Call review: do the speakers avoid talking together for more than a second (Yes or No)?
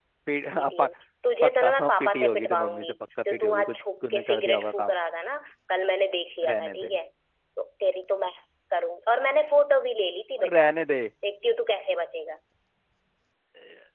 No